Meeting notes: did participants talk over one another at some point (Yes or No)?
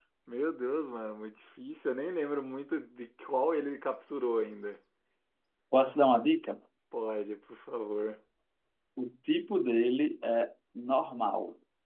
No